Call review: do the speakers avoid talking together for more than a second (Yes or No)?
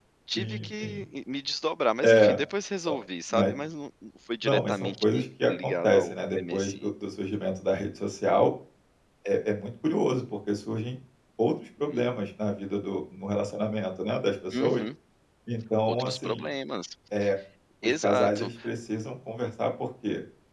No